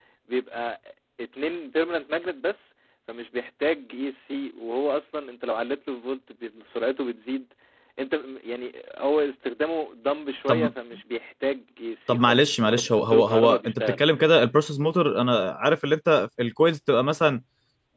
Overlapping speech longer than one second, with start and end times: 12.1-14.0

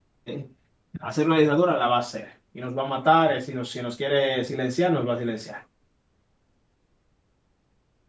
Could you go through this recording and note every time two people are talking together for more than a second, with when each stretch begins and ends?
none

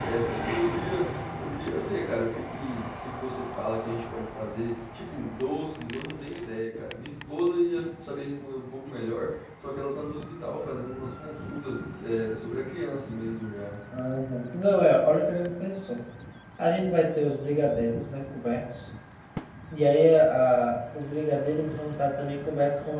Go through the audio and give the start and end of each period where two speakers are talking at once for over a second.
none

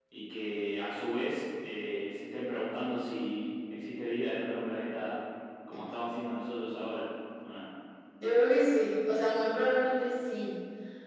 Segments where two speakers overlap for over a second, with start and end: none

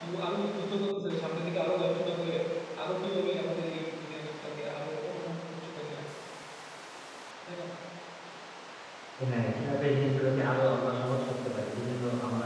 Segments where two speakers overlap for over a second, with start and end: none

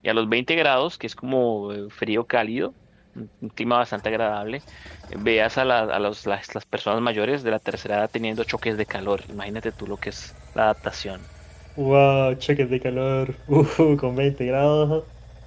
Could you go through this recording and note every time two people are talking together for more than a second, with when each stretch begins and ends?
none

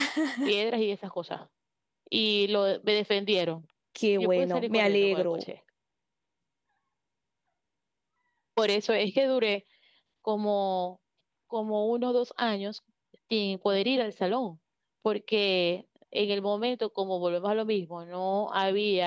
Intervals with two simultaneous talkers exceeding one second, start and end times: 4.2-5.4

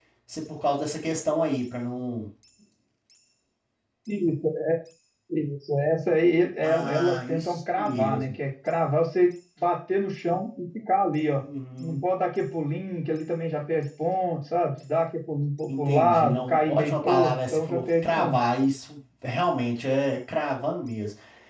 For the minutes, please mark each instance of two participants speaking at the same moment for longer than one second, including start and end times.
6.6-8.2, 15.7-18.4

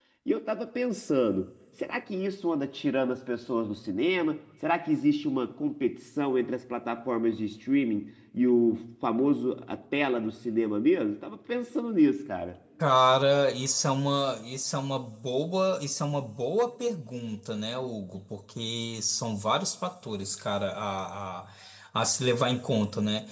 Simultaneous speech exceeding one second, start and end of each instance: none

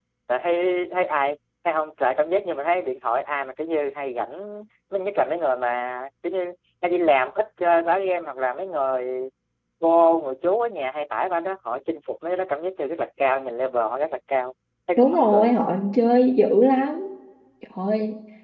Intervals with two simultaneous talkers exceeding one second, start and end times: none

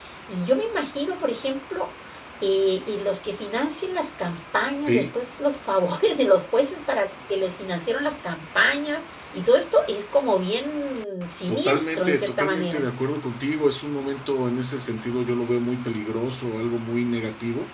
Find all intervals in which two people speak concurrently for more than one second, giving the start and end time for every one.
11.5-12.8

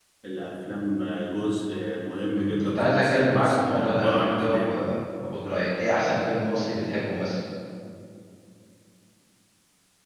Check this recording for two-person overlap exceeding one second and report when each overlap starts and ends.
2.4-4.8

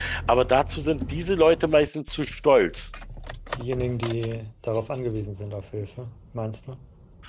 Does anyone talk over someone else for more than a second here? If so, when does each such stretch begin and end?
none

